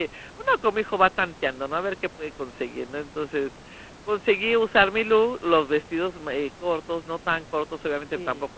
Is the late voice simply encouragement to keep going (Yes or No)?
Yes